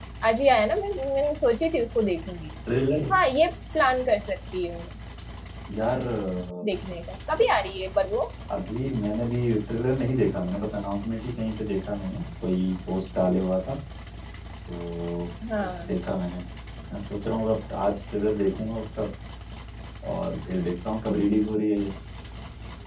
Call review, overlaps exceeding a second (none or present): none